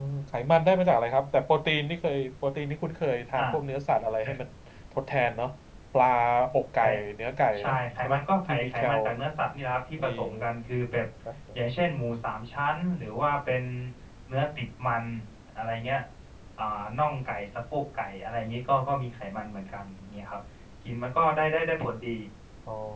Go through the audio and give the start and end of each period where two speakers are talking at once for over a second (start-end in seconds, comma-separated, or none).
7.6-9.0